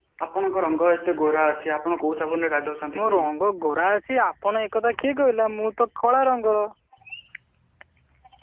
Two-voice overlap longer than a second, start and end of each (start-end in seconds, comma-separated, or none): none